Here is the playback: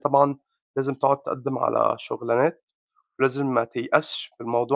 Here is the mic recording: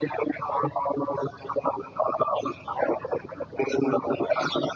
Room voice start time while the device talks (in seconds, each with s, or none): none